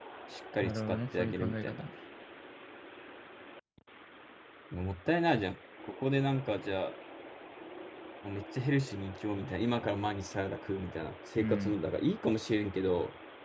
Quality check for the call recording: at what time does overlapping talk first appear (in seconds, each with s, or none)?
0.6 s